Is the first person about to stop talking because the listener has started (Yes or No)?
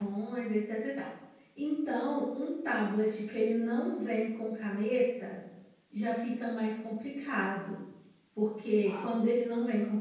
No